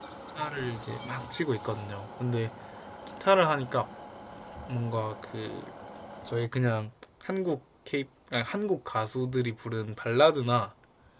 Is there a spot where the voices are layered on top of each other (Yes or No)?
No